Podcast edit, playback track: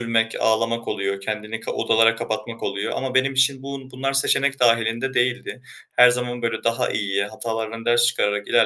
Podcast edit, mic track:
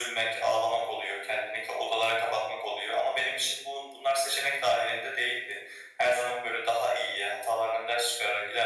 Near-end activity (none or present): none